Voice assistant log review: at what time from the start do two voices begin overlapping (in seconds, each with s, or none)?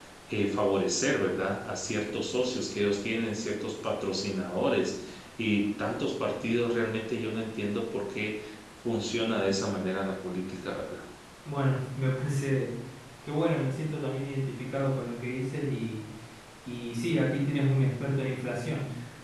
none